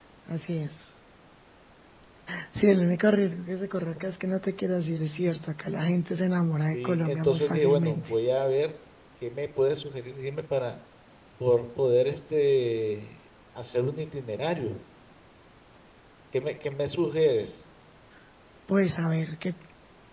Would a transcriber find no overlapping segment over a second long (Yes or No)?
No